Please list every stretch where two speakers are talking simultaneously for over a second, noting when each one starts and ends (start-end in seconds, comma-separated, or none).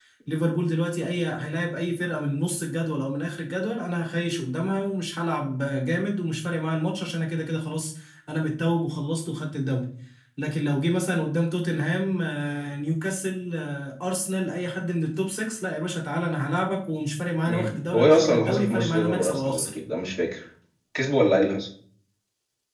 17.5-19.7